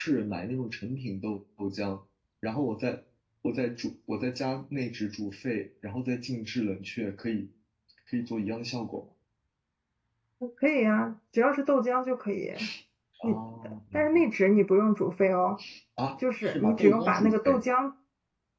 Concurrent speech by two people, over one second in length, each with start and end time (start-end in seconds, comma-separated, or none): 16.4-17.6